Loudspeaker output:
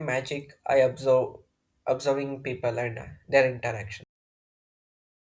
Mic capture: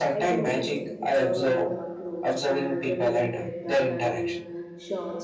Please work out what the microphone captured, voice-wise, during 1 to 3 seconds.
both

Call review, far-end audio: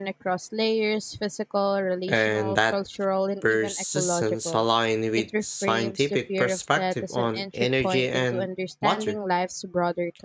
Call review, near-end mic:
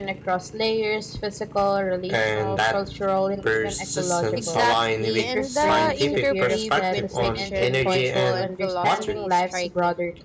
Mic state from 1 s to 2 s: echo only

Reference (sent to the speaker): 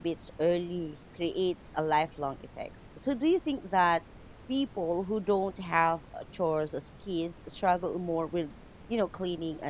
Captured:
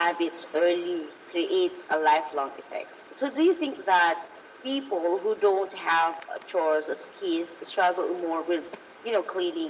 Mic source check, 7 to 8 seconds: echo only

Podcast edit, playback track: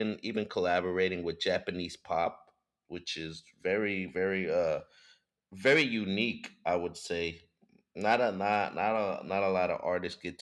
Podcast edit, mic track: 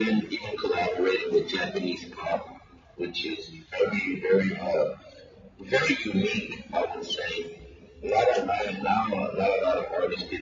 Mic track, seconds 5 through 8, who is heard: echo only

